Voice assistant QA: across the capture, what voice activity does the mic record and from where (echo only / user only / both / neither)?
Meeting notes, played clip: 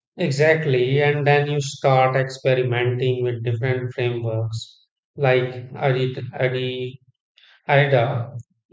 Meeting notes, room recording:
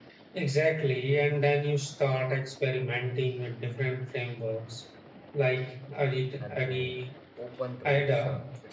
both